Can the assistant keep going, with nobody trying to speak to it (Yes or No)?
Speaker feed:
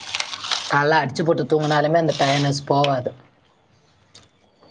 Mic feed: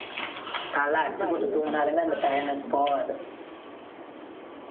No